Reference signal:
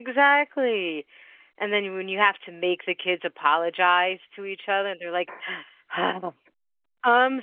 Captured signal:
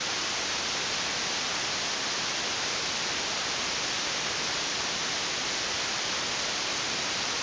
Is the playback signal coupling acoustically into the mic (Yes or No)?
No